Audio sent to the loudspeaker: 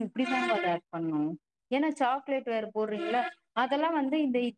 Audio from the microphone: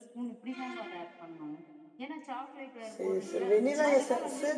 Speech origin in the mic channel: both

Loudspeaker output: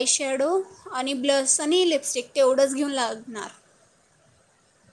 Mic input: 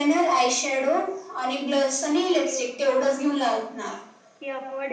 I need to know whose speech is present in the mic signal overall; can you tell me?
both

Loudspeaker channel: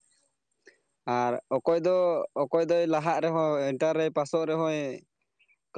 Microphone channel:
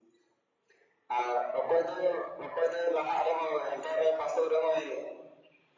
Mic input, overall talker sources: echo only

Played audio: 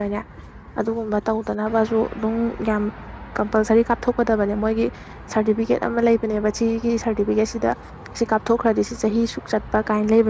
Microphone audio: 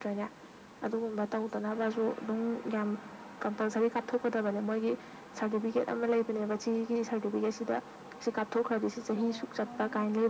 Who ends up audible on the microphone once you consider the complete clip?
both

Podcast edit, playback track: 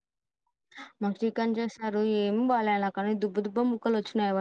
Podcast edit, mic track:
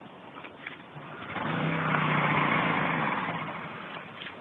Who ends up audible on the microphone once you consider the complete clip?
neither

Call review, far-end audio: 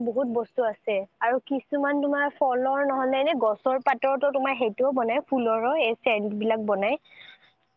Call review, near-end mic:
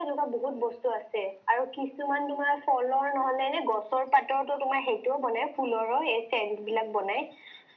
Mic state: echo only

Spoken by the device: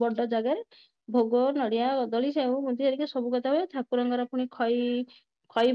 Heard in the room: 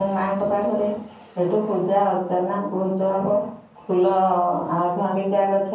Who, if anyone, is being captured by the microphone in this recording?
user only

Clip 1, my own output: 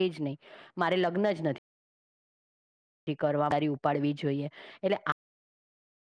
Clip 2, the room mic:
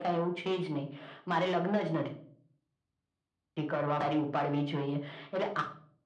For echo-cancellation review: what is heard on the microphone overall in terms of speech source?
echo only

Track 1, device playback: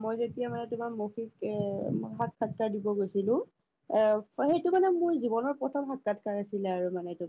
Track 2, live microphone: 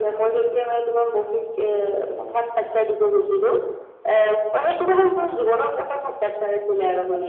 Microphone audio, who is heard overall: echo only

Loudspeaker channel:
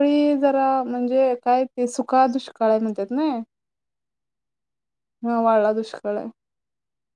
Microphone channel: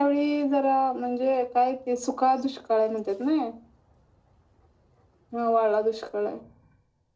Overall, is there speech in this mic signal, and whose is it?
echo only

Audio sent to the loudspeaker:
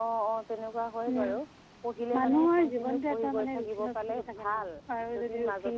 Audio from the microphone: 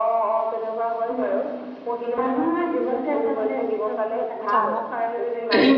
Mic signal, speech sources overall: both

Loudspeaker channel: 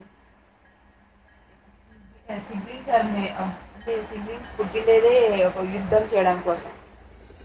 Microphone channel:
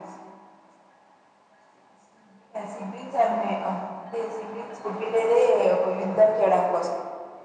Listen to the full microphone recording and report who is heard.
echo only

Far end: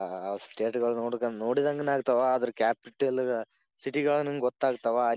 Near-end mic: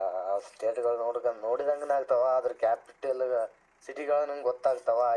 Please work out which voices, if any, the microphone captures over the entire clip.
echo only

